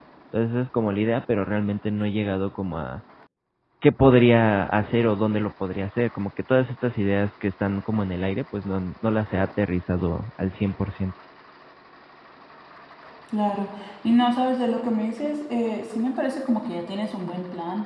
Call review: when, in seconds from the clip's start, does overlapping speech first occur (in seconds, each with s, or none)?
none